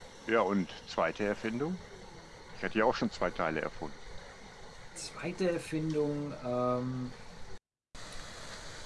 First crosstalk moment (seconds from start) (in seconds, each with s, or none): none